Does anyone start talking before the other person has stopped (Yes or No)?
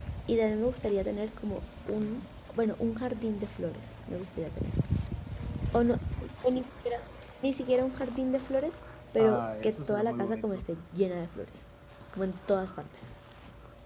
Yes